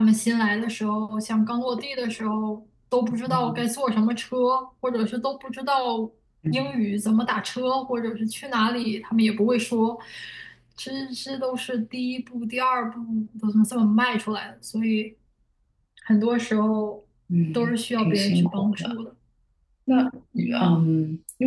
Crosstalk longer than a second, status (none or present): present